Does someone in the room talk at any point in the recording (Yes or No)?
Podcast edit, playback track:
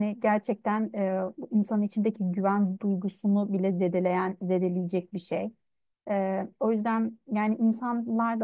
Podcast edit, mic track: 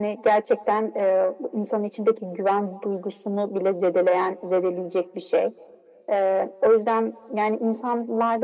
No